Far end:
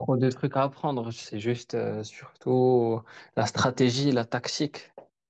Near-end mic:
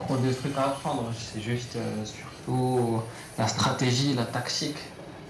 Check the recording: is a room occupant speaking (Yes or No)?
No